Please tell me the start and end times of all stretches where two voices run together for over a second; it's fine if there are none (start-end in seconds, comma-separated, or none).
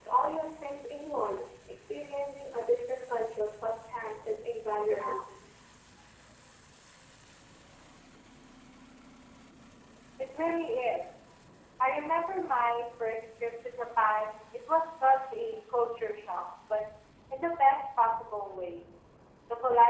none